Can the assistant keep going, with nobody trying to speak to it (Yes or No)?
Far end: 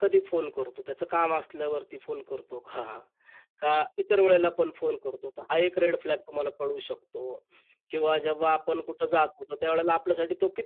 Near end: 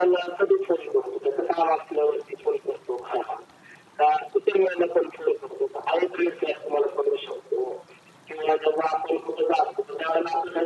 Yes